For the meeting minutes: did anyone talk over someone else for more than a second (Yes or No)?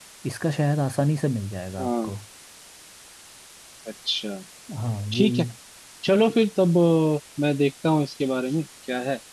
No